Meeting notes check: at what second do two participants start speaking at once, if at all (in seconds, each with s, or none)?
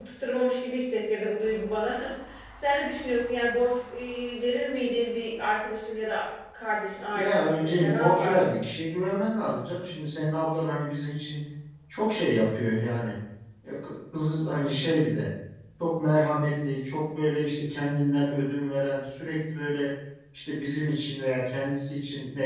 7.1 s